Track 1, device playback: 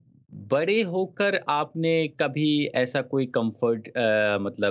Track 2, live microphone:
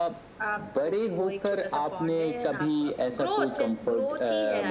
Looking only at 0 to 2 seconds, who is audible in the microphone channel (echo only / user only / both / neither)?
both